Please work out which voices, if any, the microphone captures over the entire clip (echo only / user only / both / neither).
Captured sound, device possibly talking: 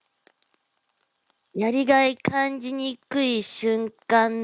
user only